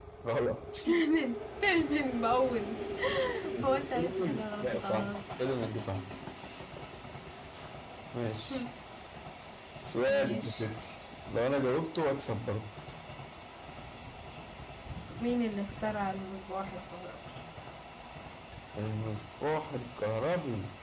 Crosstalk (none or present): present